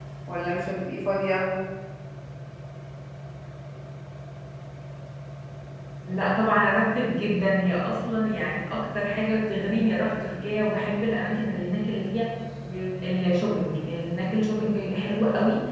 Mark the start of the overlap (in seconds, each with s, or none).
none